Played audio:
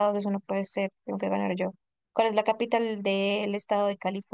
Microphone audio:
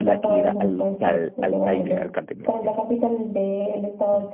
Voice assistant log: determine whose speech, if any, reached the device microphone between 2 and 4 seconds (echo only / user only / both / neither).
both